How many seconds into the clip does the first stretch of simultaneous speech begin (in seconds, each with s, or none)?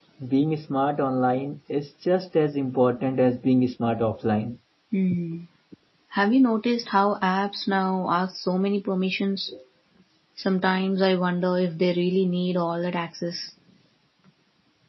none